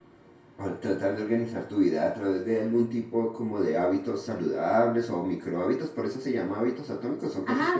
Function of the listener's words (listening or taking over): taking over